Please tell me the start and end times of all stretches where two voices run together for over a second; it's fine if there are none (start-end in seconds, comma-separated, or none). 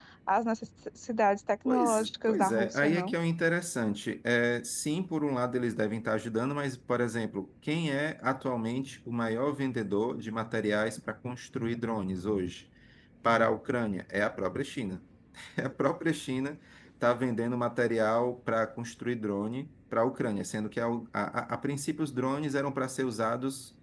1.6-3.1